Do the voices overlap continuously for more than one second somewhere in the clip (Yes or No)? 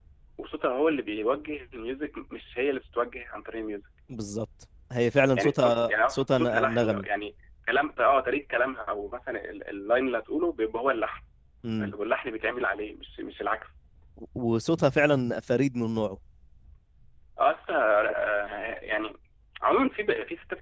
Yes